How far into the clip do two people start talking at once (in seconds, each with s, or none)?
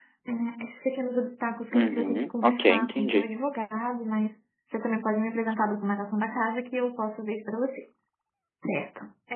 1.7 s